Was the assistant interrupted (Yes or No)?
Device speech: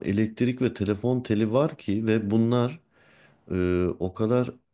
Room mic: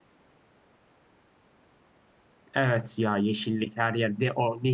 Yes